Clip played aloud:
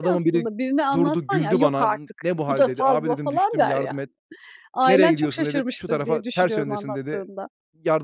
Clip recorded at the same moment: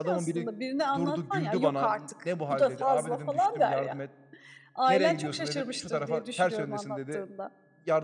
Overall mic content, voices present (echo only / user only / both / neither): echo only